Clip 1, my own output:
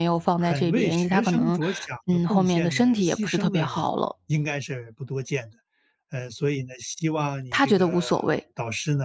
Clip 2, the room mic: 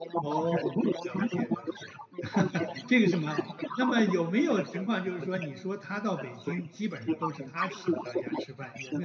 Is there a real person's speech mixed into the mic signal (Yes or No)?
Yes